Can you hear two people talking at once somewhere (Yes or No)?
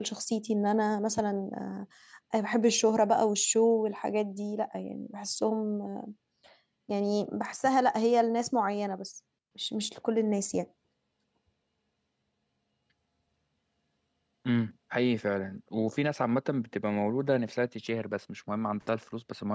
No